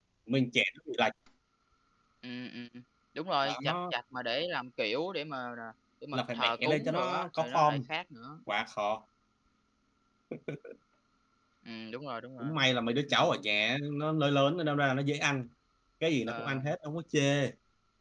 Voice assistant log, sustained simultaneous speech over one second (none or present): present